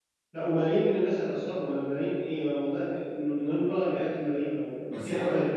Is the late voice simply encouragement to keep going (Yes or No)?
No